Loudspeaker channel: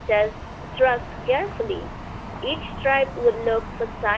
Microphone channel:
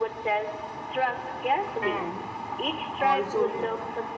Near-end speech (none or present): present